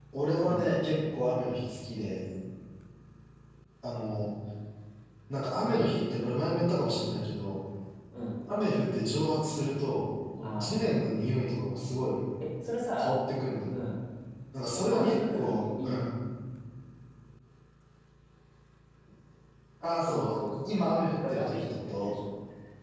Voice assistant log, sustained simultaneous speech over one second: present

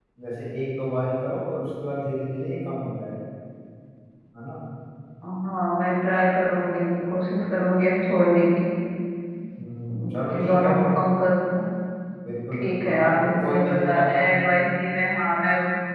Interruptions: present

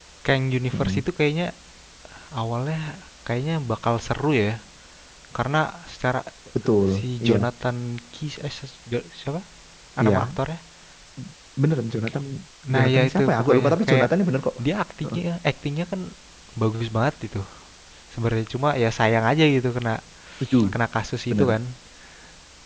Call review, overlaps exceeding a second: present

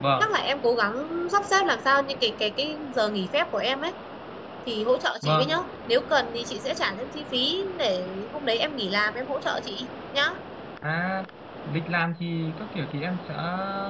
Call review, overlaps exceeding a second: none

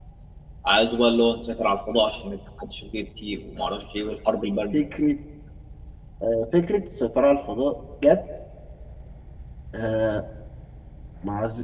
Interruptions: none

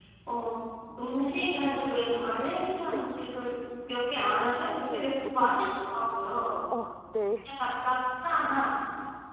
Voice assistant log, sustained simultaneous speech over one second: present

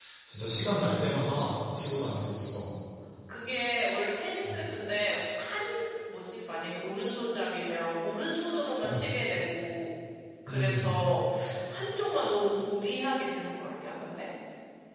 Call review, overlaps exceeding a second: none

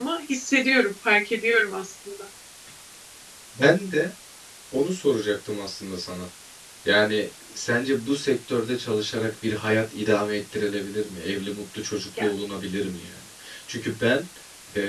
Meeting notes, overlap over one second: none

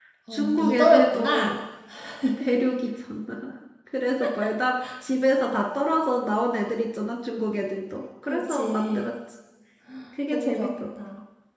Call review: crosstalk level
present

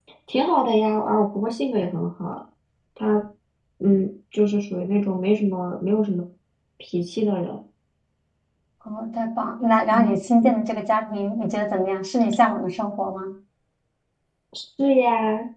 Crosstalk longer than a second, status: none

